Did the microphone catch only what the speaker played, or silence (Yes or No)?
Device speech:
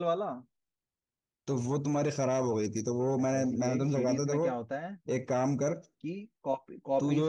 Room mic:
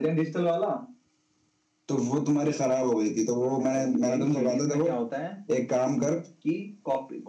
Yes